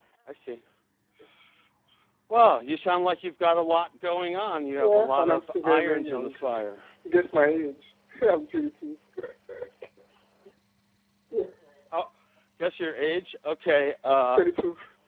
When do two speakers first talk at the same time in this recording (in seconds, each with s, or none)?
4.8 s